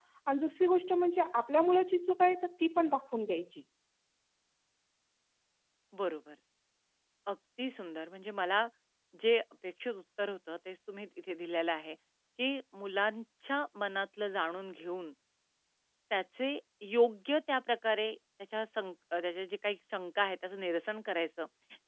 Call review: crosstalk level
none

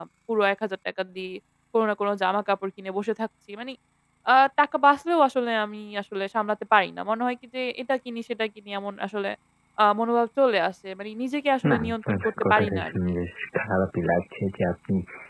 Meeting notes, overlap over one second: present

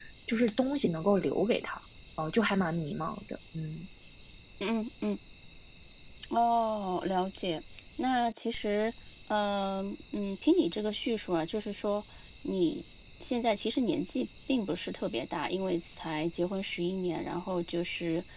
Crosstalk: none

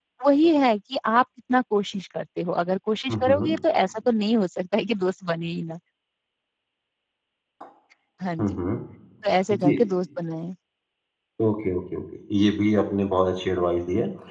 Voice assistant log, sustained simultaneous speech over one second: none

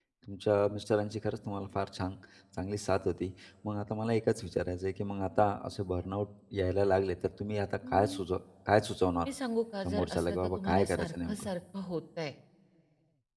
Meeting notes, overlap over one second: present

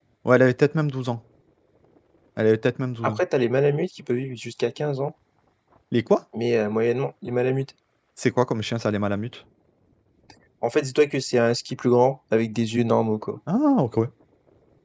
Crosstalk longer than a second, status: none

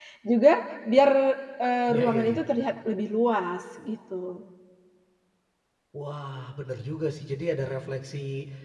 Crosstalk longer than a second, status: none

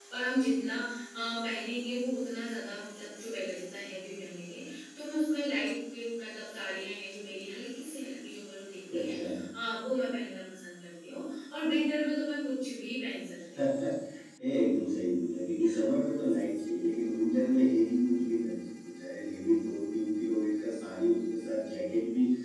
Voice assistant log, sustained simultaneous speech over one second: none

